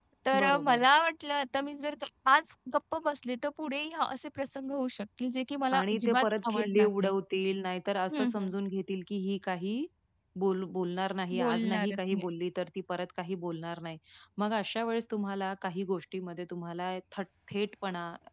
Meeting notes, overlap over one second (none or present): present